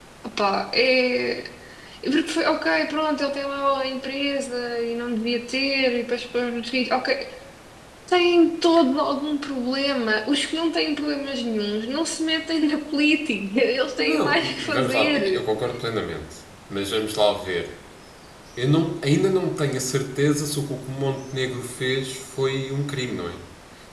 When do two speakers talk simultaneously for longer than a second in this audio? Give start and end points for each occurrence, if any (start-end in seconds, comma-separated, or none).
14.0-15.4